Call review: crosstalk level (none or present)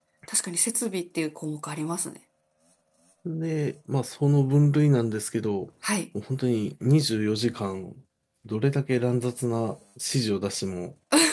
none